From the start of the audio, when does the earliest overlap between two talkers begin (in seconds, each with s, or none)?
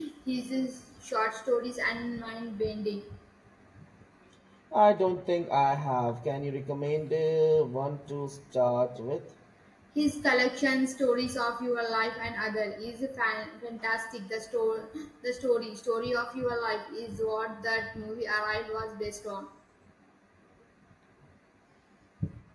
none